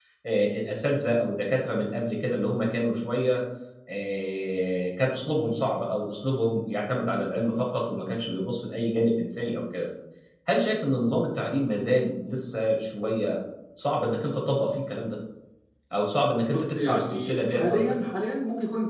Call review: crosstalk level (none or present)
present